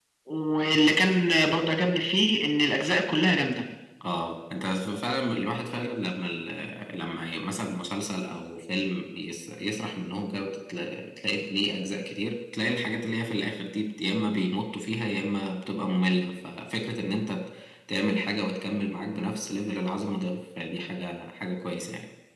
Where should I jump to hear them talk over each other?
none

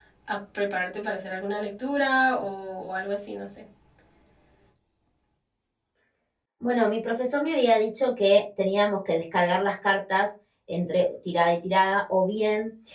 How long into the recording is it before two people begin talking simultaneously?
none

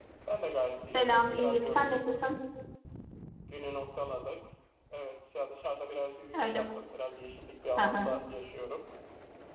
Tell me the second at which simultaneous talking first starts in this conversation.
0.9 s

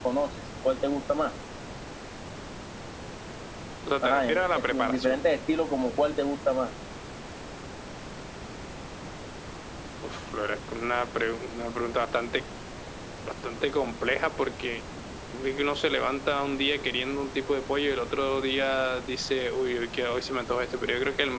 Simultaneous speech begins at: 4.0 s

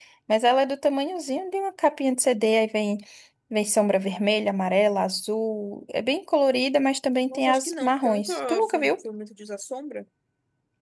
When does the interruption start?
7.3 s

